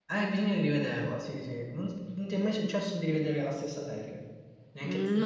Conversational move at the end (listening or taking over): taking over